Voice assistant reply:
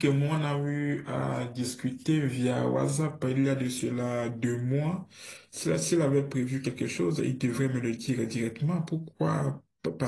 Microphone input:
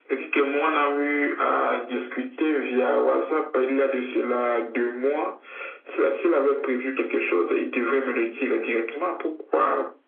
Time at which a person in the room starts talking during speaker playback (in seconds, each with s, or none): none